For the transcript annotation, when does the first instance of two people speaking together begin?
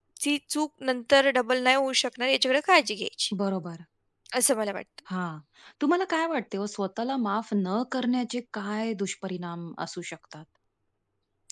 none

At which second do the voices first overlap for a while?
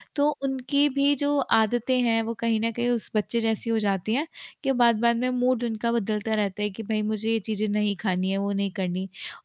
none

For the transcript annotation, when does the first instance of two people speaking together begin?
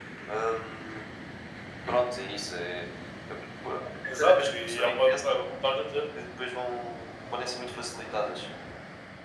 4 s

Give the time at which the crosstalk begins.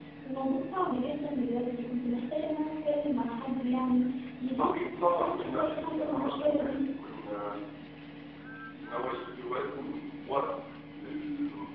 4 s

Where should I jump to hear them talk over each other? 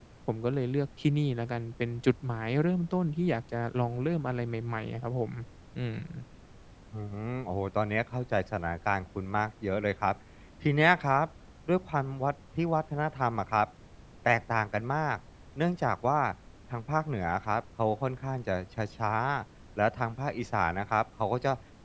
none

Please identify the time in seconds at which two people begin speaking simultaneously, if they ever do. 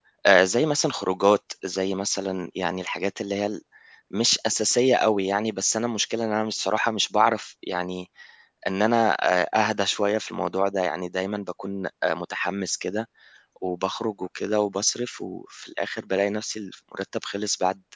none

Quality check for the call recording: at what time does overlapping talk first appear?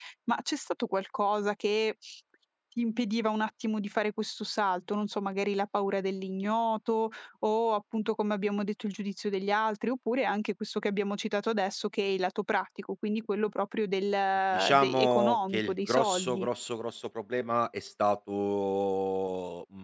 15 s

